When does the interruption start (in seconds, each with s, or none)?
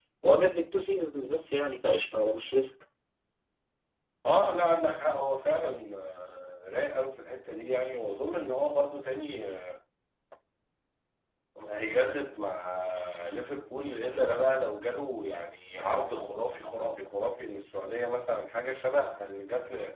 none